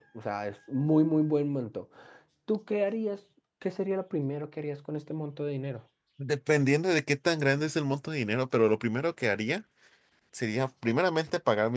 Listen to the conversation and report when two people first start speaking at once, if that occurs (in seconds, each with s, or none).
none